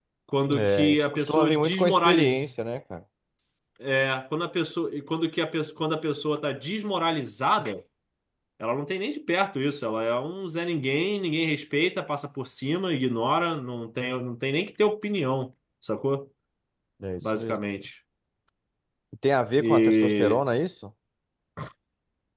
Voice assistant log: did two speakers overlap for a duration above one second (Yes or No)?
Yes